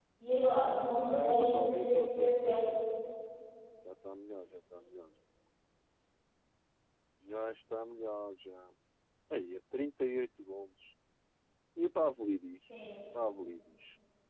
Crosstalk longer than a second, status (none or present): present